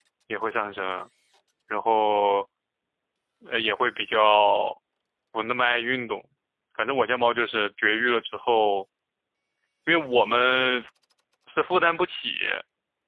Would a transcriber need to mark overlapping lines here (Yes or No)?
No